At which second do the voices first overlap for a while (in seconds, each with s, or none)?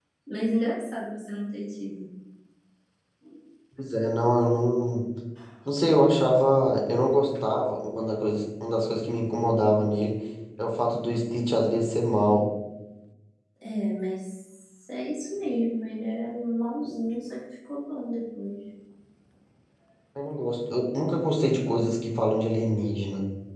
none